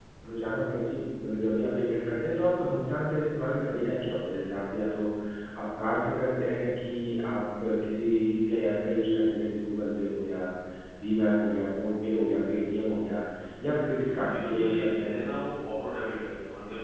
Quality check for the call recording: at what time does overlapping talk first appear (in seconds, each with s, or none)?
13.9 s